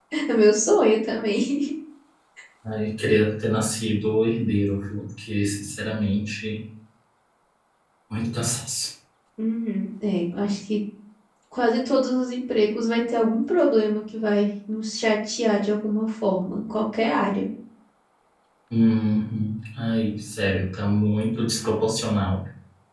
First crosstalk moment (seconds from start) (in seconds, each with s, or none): none